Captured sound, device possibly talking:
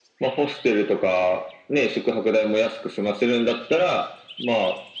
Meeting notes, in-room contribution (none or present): none